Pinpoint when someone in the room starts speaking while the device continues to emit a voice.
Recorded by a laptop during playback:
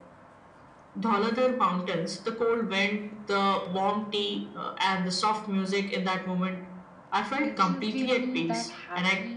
7.4 s

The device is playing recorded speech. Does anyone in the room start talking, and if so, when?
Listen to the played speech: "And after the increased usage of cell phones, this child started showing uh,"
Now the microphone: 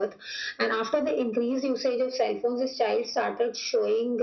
none

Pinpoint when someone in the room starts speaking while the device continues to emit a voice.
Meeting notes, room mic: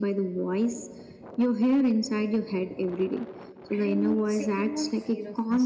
3.7 s

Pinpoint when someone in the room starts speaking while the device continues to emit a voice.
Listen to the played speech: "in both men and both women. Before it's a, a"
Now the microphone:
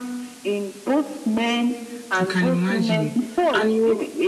2.2 s

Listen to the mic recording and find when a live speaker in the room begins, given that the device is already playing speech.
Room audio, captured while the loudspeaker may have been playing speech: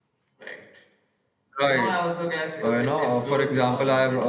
1.6 s

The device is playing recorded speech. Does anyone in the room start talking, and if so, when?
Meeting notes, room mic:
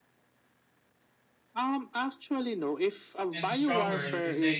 3.3 s

